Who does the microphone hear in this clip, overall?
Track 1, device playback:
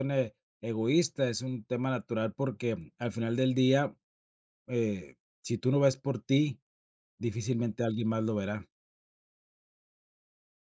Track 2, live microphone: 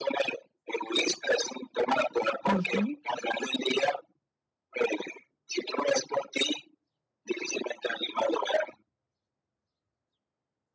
both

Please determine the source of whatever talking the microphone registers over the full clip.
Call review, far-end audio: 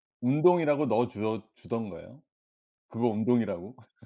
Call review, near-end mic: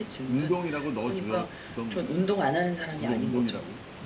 both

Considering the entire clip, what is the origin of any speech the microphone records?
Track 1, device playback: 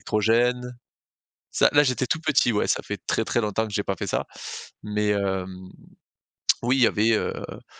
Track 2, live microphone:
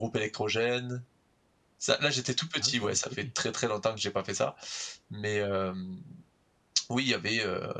both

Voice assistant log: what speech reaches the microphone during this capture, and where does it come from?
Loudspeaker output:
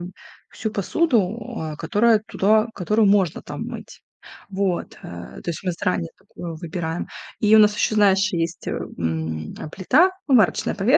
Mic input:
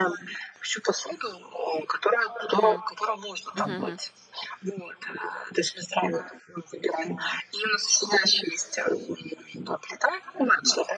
both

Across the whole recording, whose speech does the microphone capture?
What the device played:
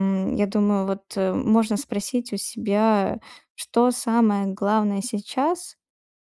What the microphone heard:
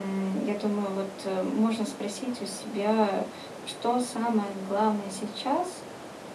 echo only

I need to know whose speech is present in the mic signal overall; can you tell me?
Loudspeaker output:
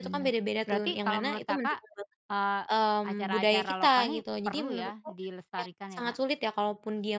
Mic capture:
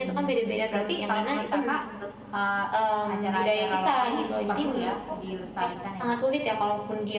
echo only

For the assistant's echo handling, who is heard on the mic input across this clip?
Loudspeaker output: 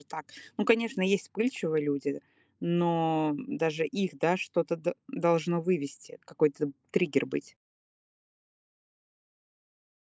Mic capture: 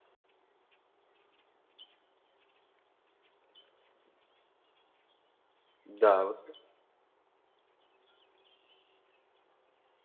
user only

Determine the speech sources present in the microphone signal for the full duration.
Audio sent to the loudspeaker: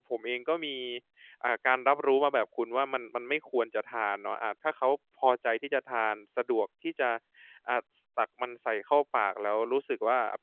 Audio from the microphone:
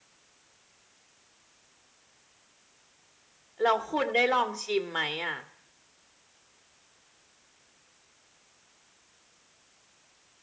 user only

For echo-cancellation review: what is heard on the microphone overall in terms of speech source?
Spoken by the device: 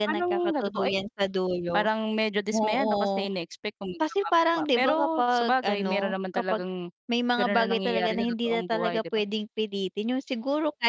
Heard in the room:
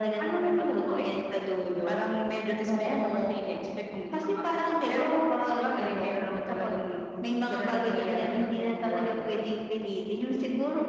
echo only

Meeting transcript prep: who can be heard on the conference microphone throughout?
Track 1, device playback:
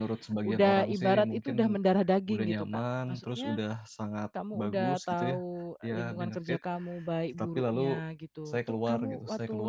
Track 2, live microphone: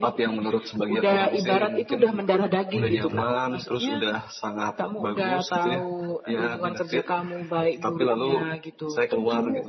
both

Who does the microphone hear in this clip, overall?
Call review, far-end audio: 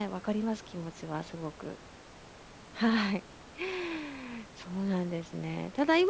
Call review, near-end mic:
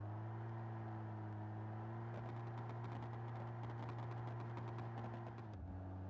neither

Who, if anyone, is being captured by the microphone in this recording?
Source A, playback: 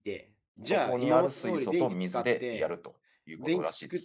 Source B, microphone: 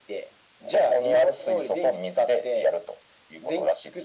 echo only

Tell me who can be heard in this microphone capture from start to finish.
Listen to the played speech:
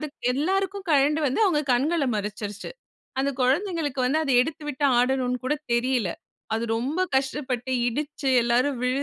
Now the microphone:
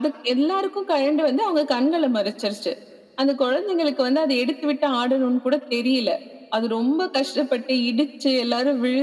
echo only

